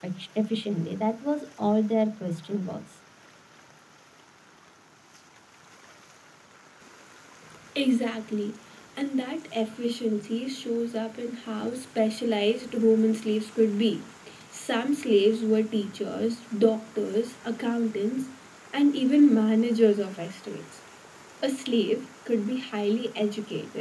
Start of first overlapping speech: none

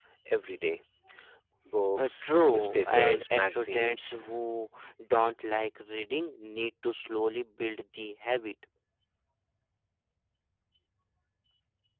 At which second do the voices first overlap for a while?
2.0 s

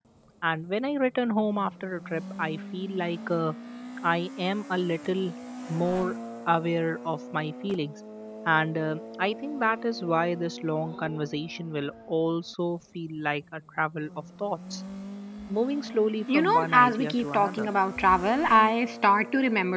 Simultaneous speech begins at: 16.3 s

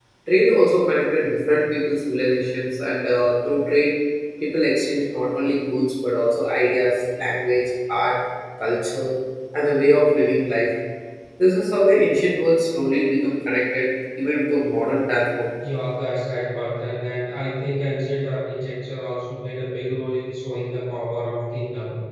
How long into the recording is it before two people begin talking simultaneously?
none

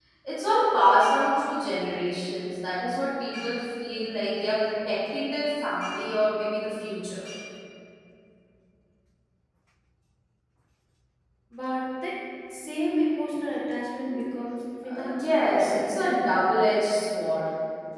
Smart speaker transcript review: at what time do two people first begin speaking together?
14.9 s

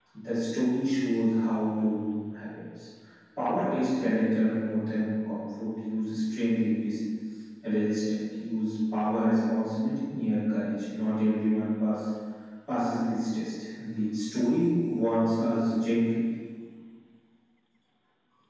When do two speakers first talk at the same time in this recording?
none

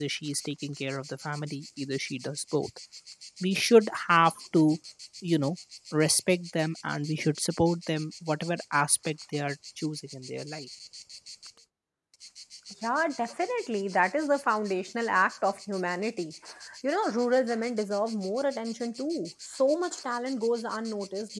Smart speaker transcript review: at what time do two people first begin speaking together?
none

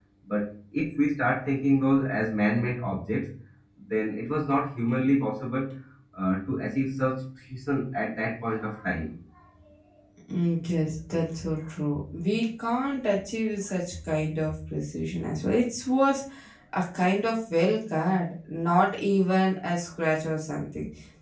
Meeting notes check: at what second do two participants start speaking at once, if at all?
none

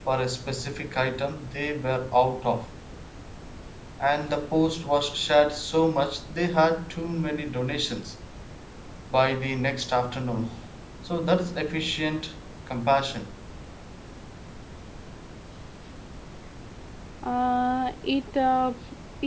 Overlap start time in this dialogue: none

